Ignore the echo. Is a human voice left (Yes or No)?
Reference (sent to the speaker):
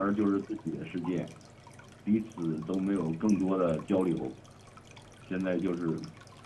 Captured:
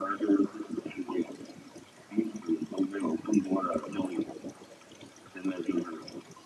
No